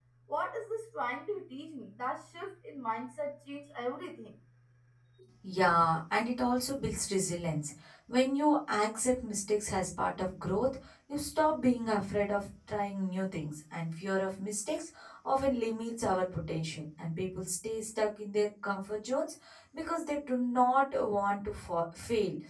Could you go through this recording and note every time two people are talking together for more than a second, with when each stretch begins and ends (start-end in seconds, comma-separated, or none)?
none